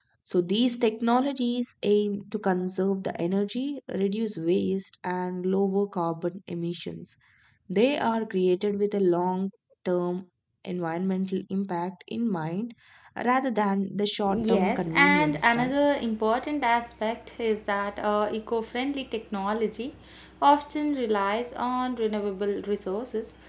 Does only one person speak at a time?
No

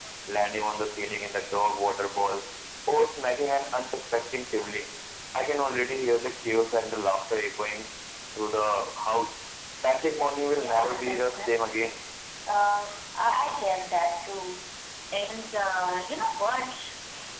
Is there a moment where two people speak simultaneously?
Yes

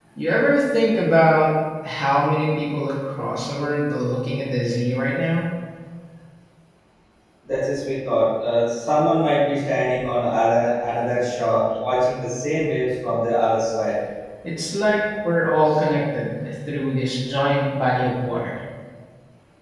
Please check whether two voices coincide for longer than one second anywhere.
No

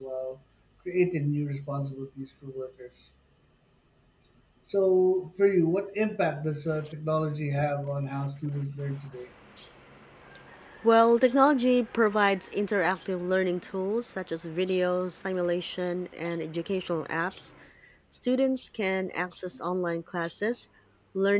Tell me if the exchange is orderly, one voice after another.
Yes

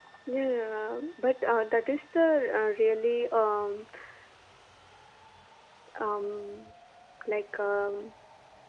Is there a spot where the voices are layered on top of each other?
No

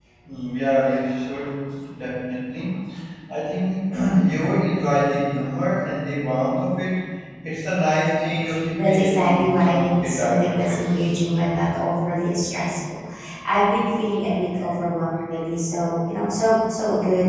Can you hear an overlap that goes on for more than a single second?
Yes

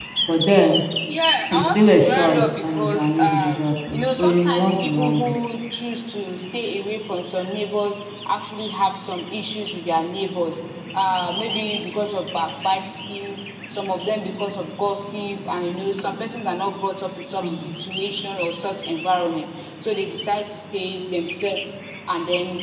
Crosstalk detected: Yes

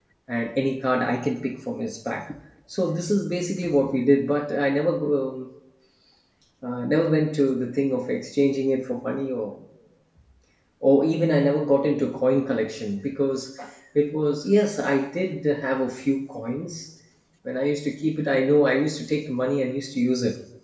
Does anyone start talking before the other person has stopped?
No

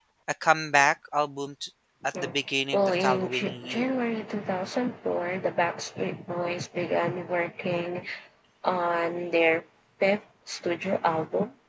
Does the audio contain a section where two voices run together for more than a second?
Yes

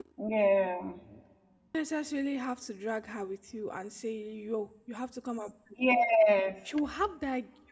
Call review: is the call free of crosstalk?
Yes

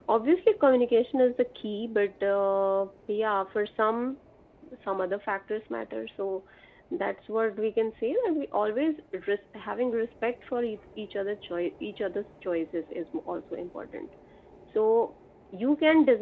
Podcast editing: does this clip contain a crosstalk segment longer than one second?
No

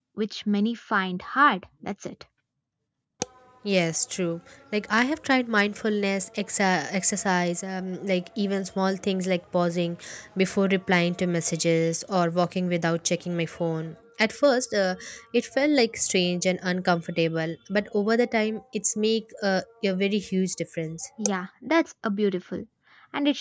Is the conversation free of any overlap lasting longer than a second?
Yes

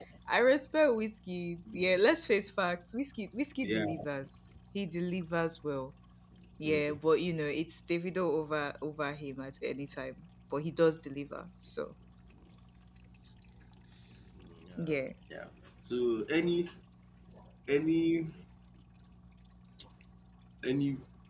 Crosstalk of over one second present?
No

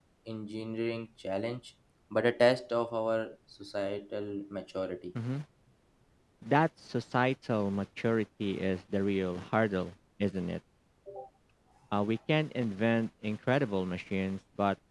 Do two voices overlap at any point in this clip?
No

